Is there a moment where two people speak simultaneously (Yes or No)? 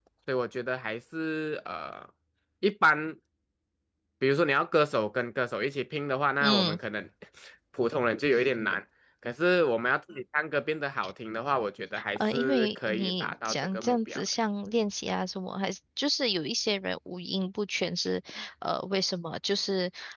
Yes